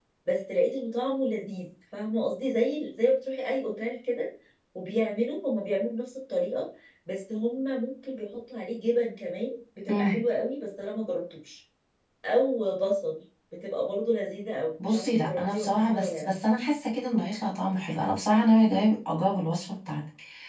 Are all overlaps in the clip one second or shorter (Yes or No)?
No